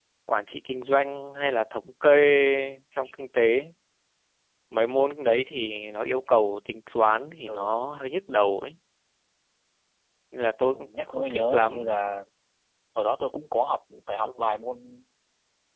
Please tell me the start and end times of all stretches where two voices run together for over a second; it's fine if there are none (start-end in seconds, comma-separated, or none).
10.7-12.0